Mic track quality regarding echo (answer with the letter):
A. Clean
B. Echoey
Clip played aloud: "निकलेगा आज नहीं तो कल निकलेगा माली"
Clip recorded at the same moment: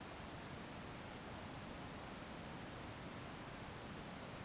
A